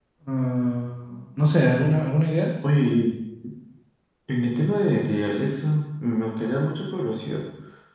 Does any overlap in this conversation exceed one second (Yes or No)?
No